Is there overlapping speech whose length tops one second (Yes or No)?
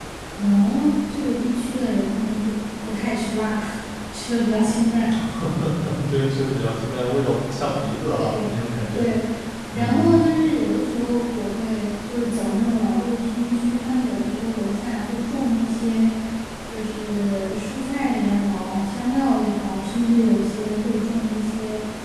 No